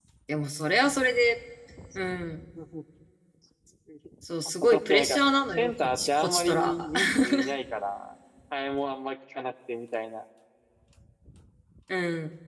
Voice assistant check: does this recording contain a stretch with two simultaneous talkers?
Yes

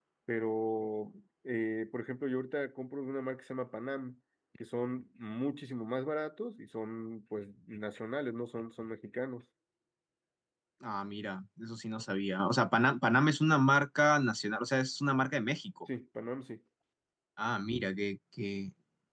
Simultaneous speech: No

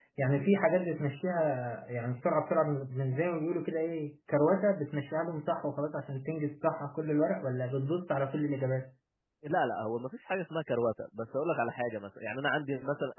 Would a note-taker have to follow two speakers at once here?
No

